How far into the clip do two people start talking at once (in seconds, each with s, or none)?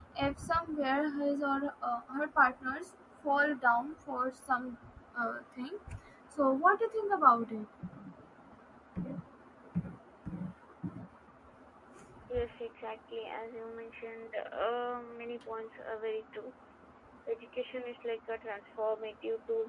none